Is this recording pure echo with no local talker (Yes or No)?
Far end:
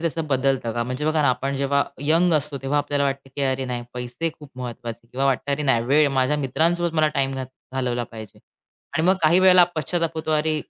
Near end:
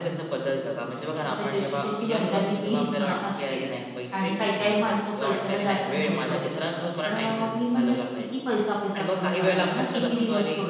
No